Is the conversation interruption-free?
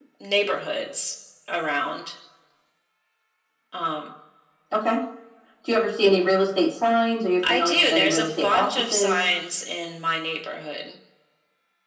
No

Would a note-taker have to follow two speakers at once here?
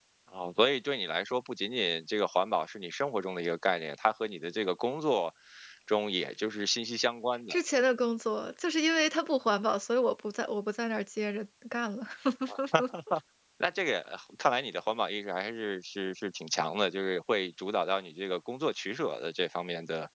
No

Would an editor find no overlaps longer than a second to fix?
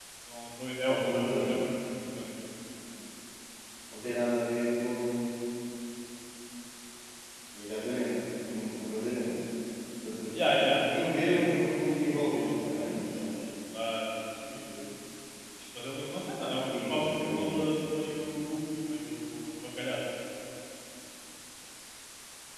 No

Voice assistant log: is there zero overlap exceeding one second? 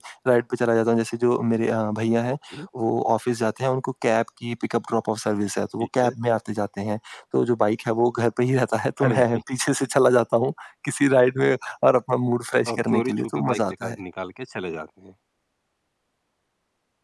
No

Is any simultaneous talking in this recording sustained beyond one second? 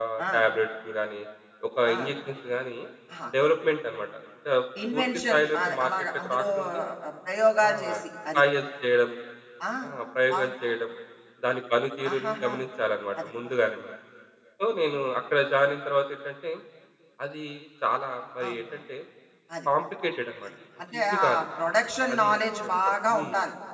Yes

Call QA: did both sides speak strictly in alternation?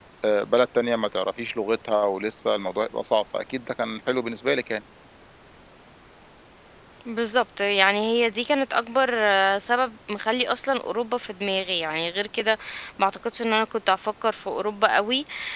Yes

